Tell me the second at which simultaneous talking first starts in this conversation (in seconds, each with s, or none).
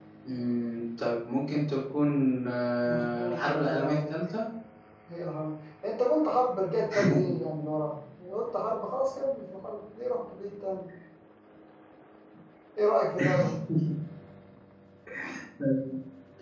2.8 s